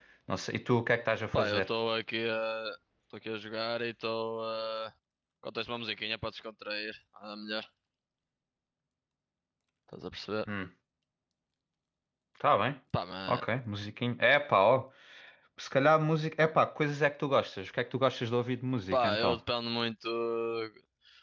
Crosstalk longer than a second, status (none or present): none